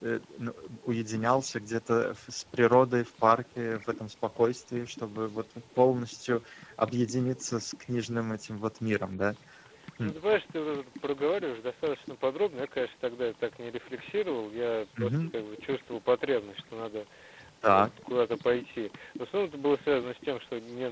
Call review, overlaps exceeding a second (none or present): none